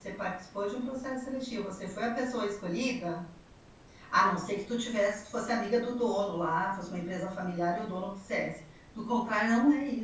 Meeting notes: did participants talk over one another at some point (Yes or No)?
No